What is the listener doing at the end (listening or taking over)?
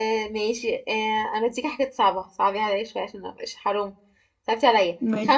listening